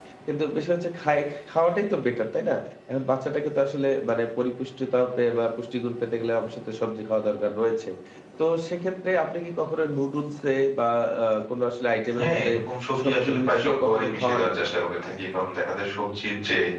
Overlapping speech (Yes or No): Yes